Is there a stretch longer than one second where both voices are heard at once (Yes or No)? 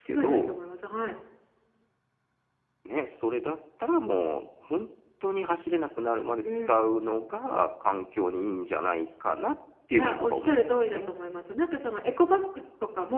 Yes